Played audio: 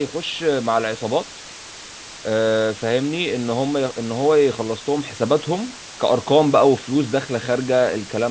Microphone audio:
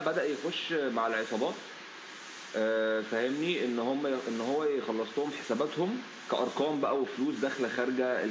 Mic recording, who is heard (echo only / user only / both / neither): echo only